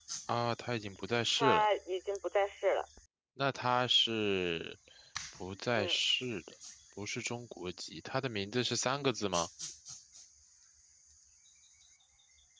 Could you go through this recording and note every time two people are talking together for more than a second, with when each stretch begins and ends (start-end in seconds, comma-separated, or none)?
none